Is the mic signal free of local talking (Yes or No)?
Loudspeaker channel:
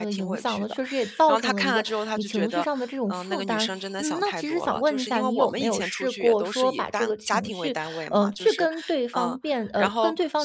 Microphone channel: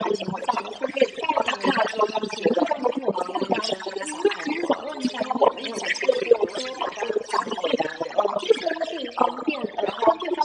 Yes